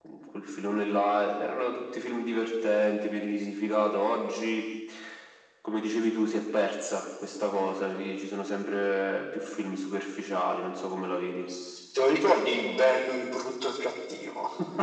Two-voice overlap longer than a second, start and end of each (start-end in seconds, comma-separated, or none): none